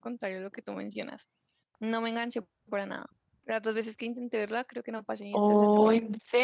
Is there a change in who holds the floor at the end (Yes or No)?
Yes